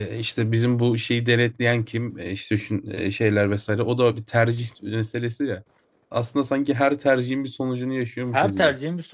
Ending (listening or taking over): taking over